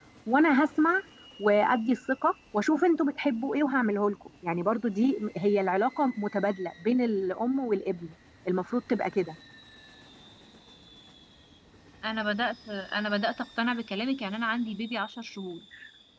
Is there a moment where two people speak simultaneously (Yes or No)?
No